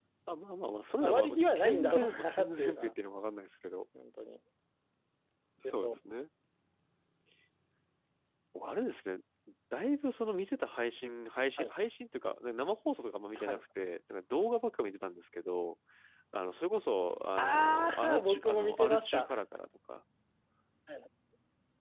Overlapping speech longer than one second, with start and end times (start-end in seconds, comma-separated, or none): 1.0-2.9, 17.4-19.4